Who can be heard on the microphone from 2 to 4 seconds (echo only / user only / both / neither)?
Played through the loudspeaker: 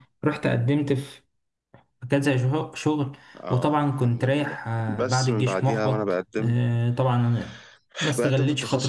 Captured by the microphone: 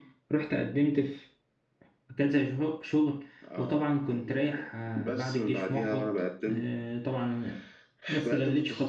echo only